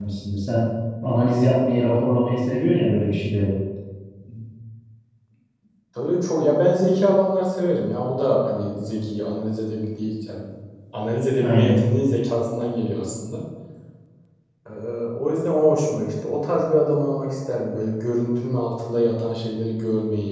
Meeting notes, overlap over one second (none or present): none